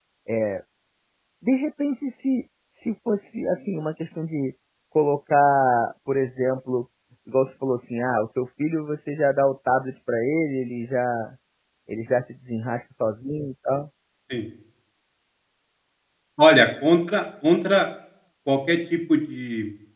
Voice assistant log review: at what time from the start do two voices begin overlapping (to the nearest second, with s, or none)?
none